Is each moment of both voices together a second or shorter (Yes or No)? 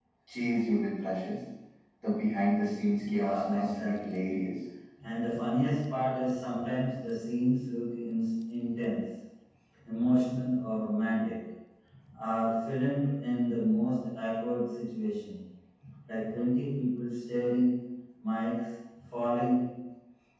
No